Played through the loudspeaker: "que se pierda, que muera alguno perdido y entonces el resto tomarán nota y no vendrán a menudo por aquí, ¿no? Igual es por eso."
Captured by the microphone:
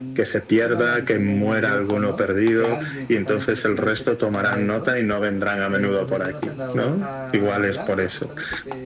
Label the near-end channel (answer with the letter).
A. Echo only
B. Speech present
B